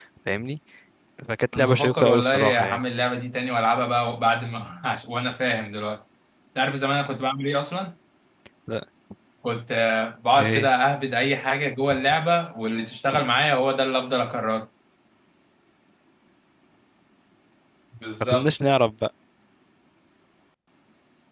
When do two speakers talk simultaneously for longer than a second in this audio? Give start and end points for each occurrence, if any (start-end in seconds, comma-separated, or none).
1.5-2.8